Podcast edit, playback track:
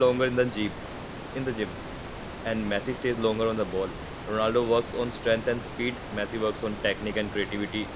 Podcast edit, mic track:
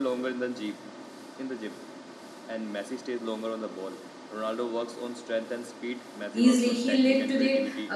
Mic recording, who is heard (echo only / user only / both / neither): both